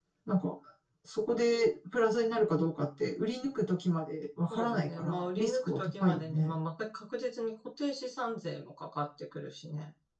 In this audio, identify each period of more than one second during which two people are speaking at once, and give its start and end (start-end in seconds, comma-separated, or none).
4.5-6.5